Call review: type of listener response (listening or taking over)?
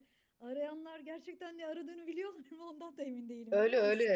taking over